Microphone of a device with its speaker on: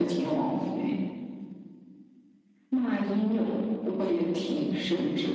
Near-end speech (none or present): none